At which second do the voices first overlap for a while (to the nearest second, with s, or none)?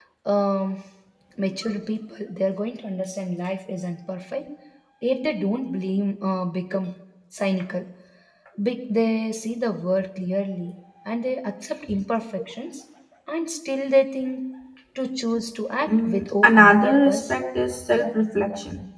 16 s